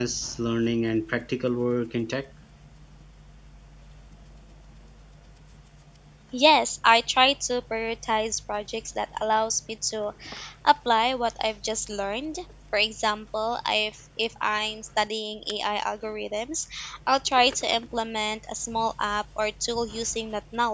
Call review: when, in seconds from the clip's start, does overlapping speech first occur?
none

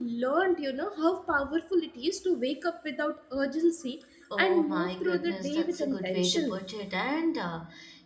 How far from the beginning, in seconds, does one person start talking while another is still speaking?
4 s

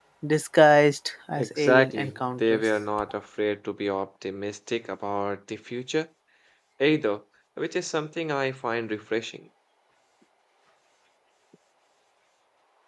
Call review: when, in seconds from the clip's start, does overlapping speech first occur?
1 s

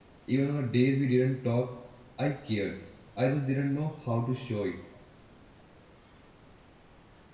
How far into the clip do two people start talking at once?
none

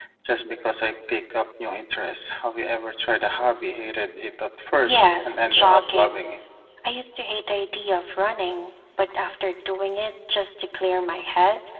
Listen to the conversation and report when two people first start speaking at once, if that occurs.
5 s

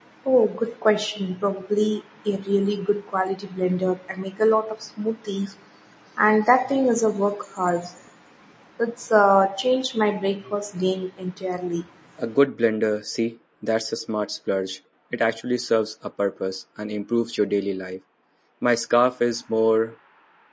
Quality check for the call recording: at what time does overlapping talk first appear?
none

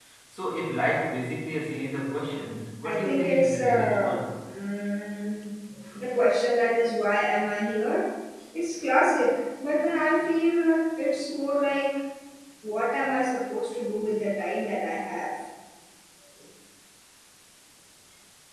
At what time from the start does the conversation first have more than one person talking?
3 s

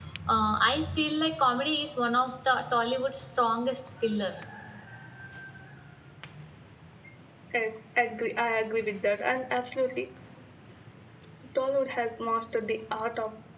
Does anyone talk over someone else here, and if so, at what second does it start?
none

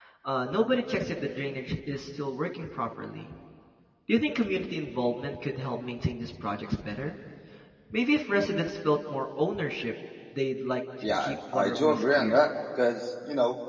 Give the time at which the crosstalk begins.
11 s

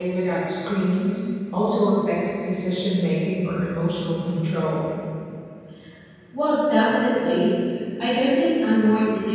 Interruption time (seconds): none

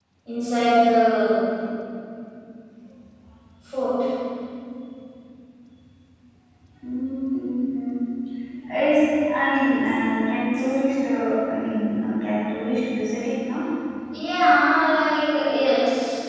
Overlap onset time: none

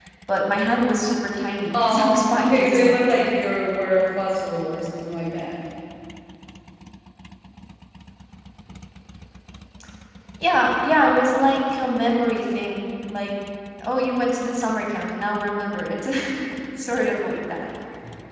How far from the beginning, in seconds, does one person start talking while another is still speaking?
2 s

